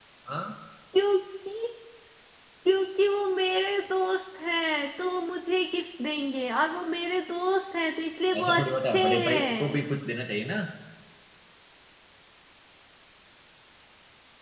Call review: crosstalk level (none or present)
present